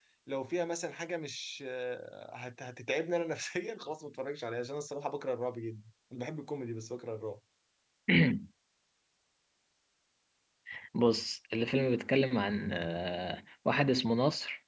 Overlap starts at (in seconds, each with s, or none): none